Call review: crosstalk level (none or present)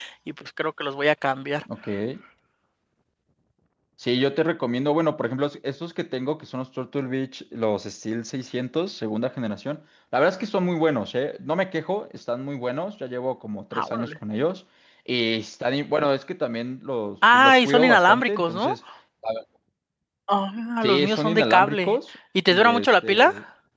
present